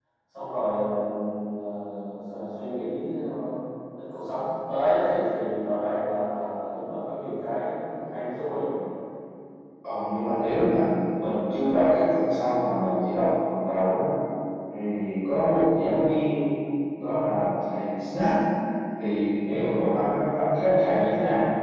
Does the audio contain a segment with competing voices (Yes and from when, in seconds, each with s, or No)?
No